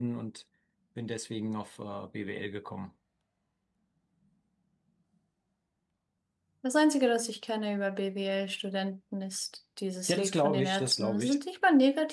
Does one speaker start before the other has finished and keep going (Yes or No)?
Yes